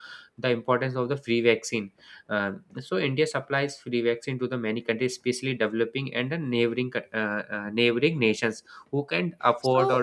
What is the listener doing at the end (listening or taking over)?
taking over